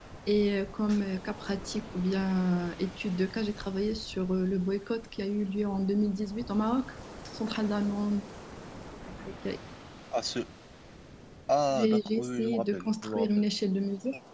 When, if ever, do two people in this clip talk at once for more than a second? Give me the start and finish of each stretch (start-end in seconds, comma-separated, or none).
11.7-13.3